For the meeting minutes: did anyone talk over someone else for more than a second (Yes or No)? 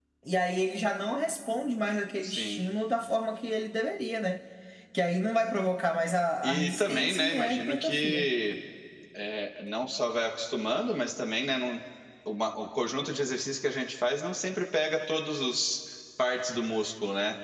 Yes